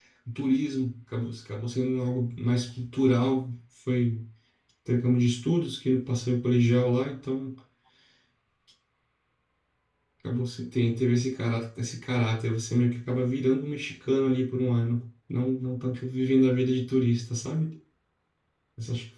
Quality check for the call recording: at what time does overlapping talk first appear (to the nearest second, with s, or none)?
none